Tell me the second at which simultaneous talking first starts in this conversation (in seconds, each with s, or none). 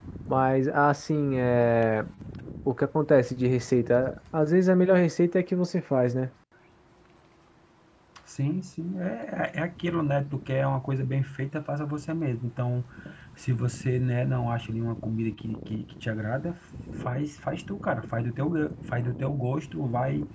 none